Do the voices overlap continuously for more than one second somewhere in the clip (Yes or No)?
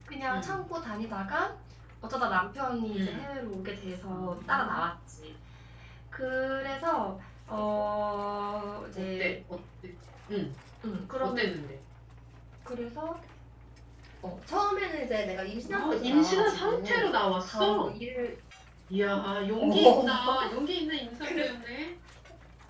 Yes